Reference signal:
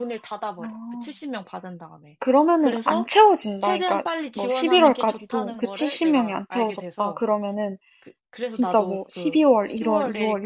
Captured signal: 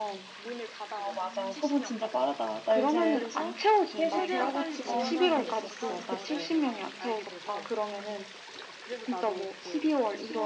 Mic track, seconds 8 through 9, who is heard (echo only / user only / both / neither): echo only